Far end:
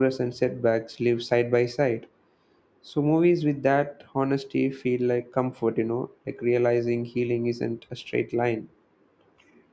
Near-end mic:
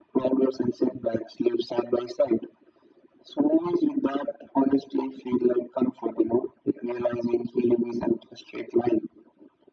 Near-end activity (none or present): none